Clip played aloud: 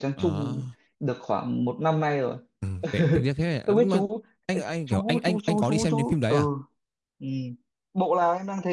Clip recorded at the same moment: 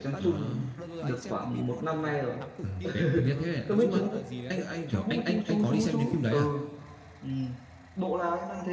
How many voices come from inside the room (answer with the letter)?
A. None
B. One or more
B